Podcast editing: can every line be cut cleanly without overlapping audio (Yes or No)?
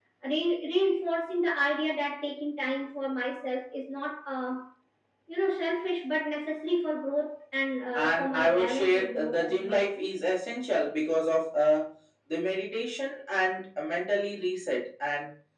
No